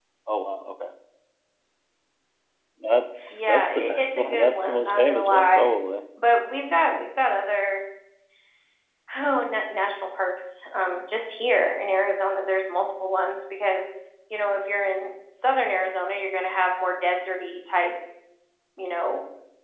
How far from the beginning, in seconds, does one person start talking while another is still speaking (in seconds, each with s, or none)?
3.3 s